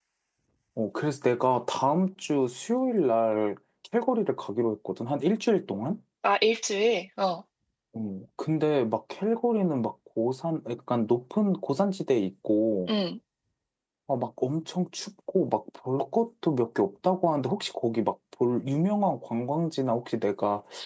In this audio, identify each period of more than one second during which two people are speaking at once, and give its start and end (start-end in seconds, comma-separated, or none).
none